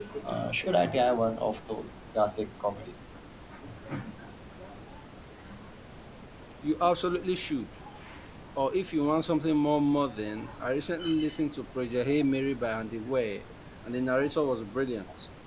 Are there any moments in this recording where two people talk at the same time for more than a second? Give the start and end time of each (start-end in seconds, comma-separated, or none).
none